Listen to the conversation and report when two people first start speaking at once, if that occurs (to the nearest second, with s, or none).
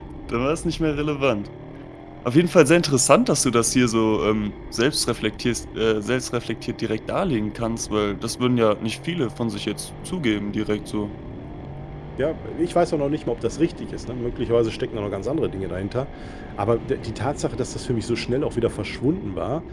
none